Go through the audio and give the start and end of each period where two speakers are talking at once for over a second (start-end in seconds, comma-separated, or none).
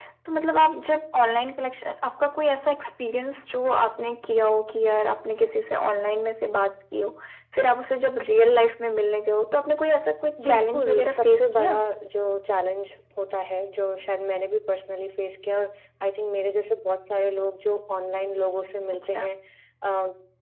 10.4-11.8